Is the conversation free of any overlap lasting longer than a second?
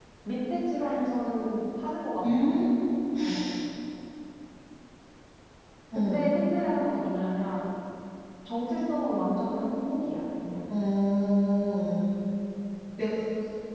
Yes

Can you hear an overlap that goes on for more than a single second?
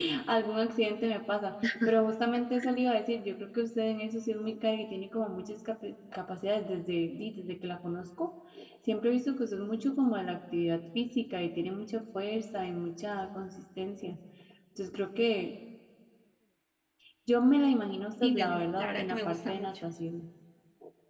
Yes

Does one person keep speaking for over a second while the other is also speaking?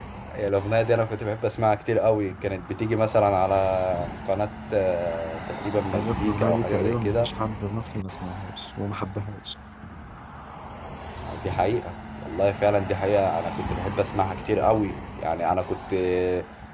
Yes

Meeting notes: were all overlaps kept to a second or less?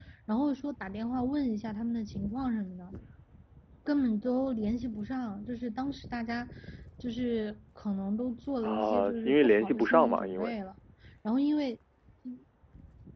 No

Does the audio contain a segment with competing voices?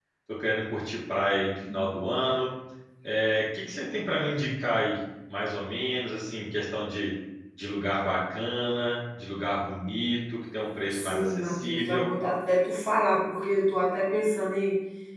Yes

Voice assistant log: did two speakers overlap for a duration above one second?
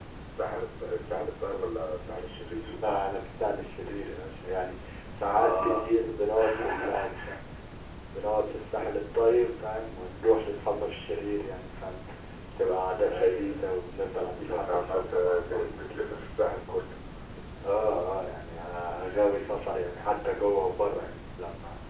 Yes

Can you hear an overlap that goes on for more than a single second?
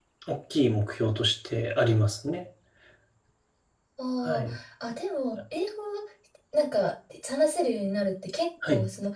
No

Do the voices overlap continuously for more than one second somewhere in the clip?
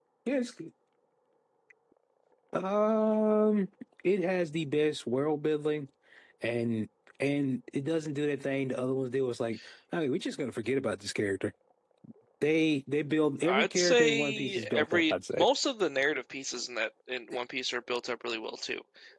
Yes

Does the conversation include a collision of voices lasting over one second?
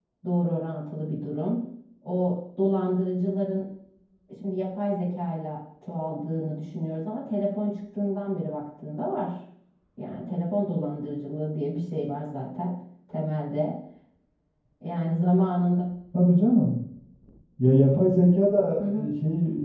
No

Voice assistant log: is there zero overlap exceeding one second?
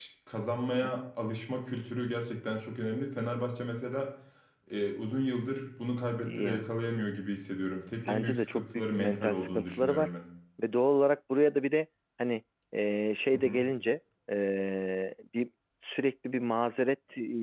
No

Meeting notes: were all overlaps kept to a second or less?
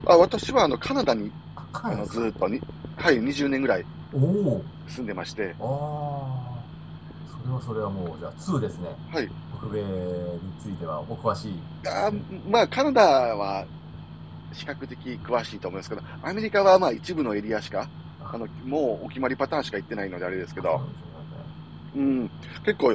Yes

